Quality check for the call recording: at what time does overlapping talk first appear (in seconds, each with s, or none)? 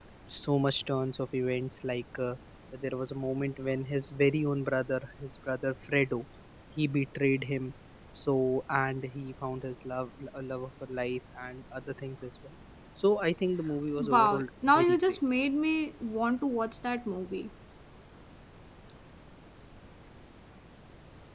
14.0 s